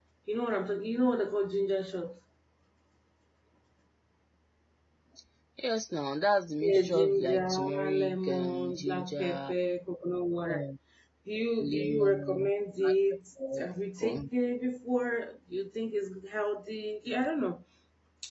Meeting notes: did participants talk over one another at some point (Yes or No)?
Yes